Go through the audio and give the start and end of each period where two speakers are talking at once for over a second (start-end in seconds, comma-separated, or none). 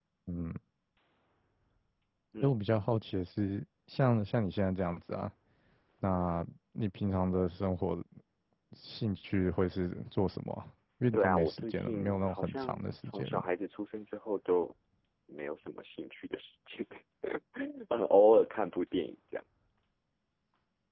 11.1-13.5